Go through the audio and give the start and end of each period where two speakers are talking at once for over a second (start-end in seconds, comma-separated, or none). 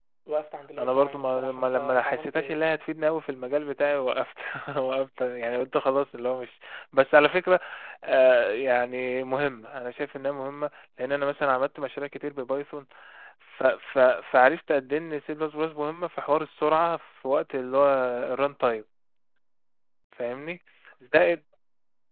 0.8-2.6